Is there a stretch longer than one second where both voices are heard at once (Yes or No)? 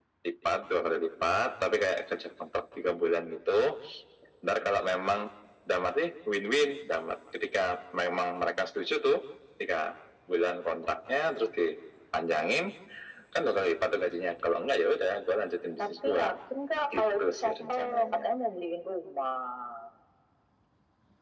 Yes